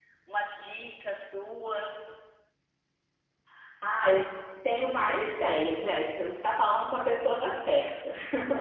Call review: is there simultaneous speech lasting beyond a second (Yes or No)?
No